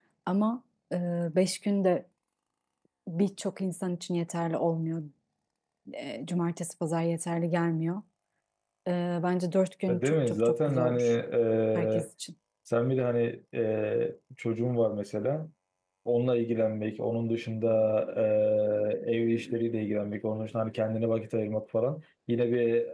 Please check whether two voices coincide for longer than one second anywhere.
Yes, from 9.9 s

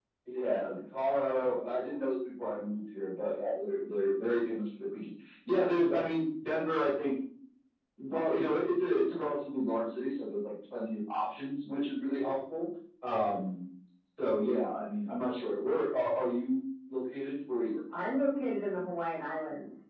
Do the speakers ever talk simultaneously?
No

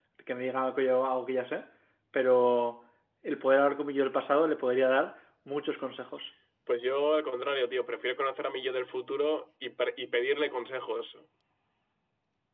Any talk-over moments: No

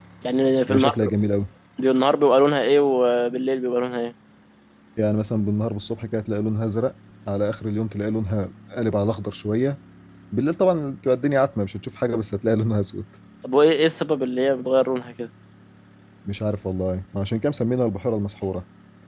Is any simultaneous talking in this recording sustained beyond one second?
No

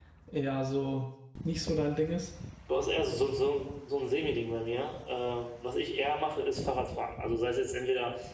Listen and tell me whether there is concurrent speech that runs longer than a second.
No

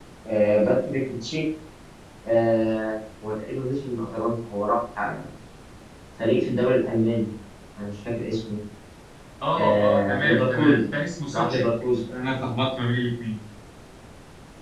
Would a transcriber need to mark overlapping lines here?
Yes, from 9.6 s

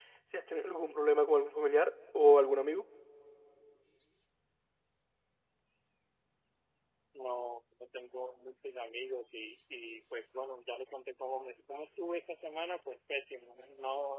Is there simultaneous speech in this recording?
No

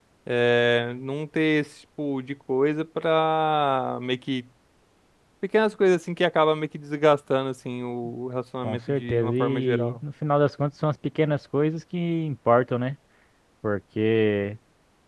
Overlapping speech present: Yes, from 8.6 s

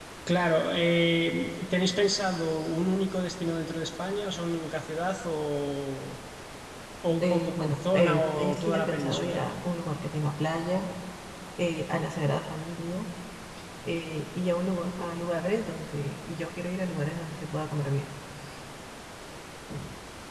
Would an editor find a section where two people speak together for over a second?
Yes, from 7.2 s

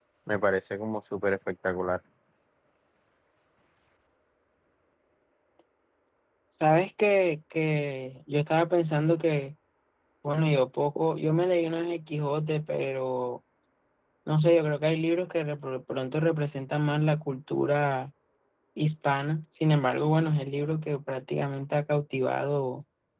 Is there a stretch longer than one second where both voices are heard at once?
No

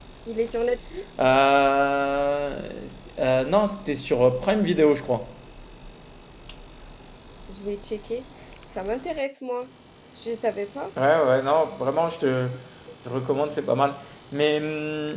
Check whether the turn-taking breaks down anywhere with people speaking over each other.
No

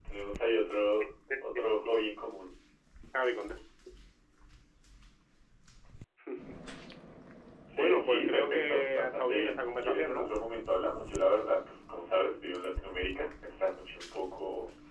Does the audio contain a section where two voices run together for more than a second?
Yes, from 7.8 s

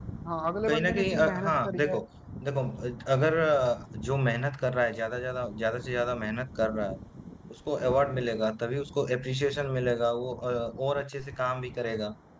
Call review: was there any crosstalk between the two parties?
Yes, from 0.7 s

